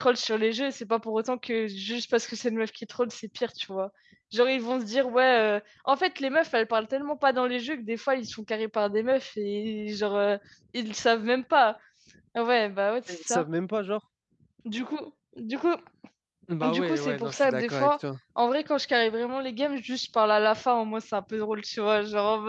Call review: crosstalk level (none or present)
present